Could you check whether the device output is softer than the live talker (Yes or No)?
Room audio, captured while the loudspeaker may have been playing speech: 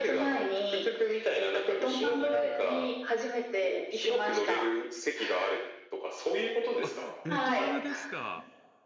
No